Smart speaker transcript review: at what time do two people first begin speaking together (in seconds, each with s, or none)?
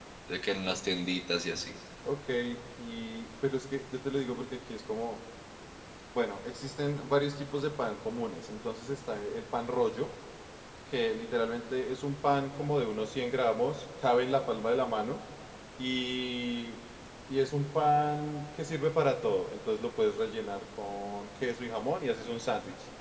none